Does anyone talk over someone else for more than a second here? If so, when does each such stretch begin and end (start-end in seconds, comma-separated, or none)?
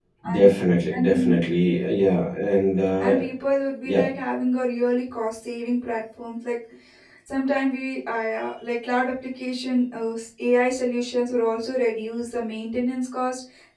none